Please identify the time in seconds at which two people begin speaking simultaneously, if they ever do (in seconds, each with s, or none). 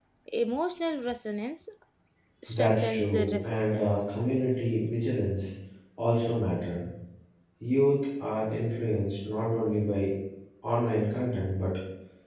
2.5 s